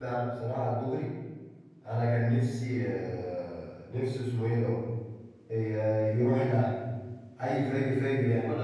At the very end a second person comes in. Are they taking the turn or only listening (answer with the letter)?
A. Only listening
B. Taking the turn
B